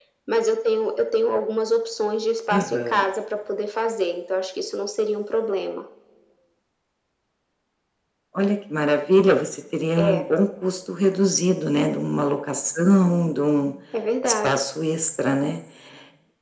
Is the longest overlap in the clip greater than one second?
No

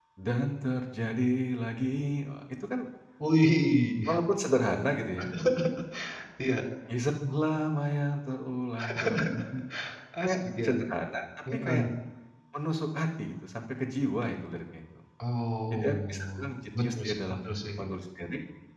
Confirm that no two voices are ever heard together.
No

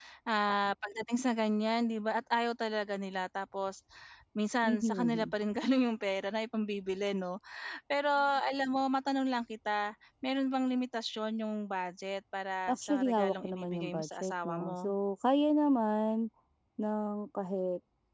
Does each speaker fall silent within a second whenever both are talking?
No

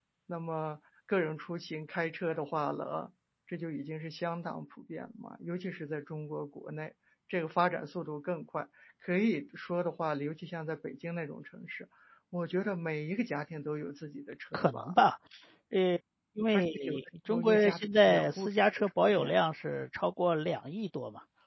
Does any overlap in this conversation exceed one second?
Yes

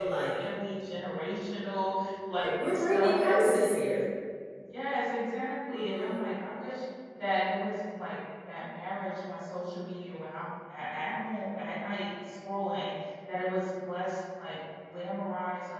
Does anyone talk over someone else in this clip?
Yes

